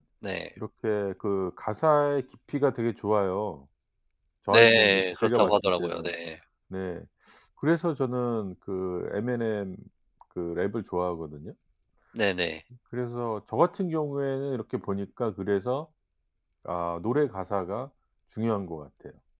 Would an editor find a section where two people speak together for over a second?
Yes, from 4.5 s

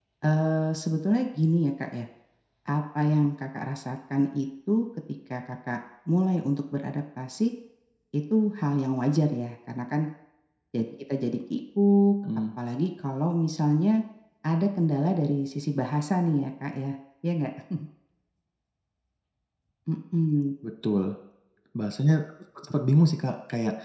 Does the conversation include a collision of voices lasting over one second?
No

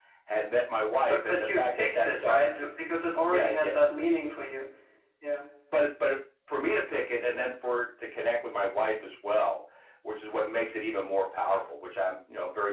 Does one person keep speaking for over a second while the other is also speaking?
Yes, from 1.1 s

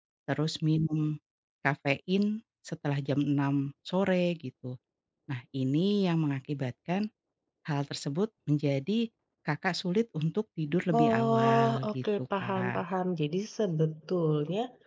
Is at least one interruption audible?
Yes, from 10.9 s

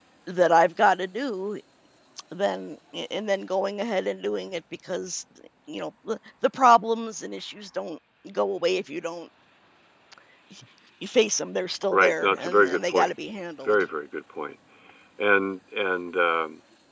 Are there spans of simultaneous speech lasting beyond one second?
Yes, from 11.9 s

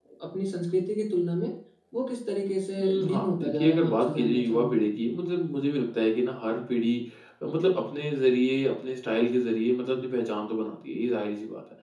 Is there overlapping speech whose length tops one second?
Yes, from 2.8 s

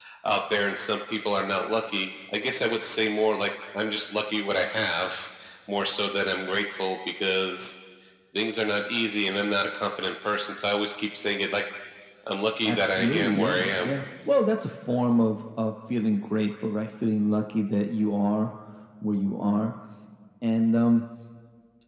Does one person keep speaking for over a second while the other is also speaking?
Yes, from 12.7 s

